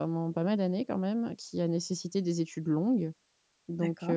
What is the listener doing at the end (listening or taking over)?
listening